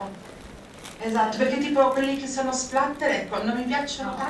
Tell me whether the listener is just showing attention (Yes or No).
Yes